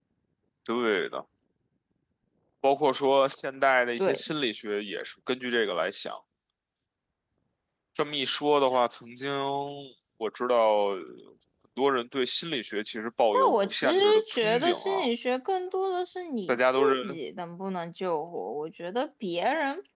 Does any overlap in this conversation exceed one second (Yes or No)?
Yes